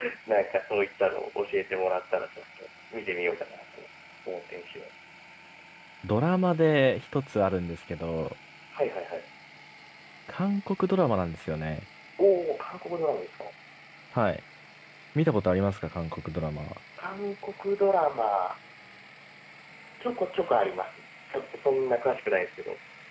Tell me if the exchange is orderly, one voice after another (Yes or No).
Yes